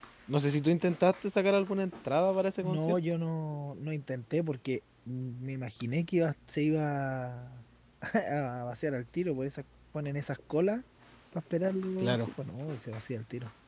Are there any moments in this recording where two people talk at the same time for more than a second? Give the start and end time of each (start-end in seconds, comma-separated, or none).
none